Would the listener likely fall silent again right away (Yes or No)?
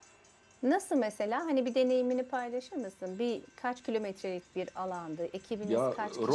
No